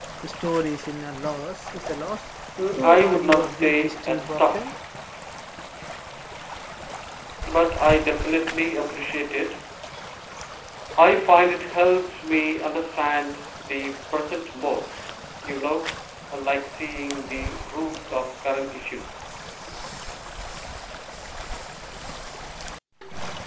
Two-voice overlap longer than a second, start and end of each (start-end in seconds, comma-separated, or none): 2.8-4.7